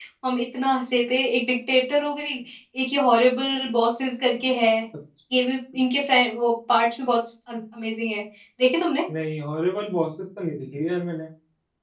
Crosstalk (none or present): none